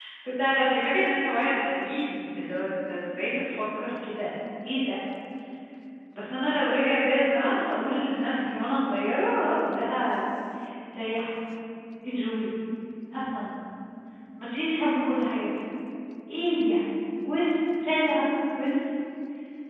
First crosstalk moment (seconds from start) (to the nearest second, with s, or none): none